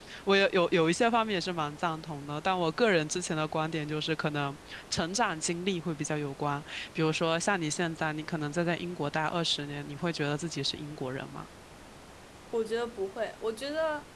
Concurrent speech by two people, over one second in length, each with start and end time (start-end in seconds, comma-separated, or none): none